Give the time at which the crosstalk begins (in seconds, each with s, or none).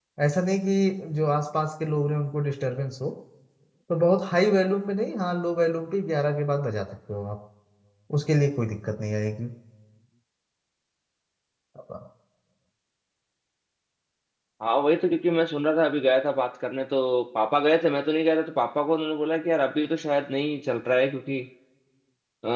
none